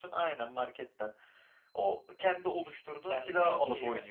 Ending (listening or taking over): taking over